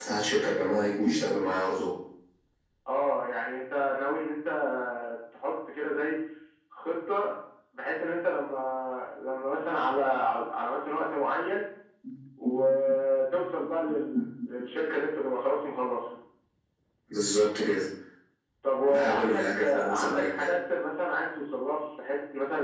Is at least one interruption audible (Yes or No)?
Yes